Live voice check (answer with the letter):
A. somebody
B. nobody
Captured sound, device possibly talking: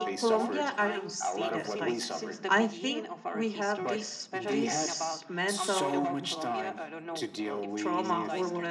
A